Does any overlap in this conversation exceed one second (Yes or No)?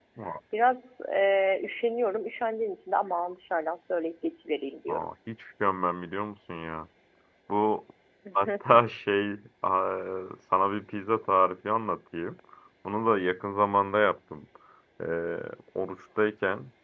No